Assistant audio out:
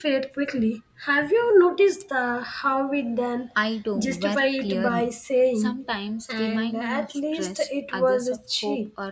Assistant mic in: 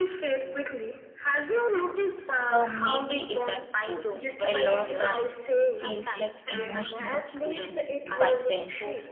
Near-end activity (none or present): present